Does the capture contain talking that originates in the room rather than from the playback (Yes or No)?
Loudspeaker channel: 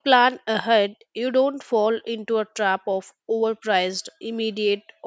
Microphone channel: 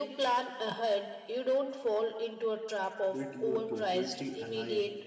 Yes